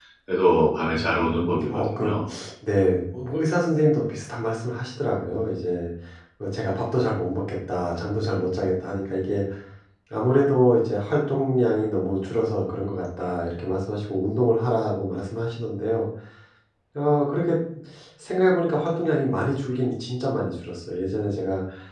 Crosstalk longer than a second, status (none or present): present